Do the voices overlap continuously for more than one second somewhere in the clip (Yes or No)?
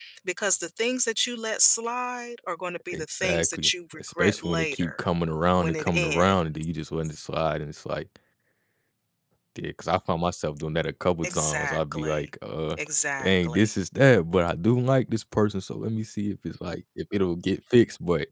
Yes